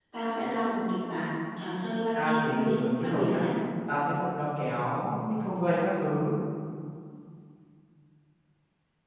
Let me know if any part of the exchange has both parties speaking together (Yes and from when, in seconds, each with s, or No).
Yes, from 2.1 s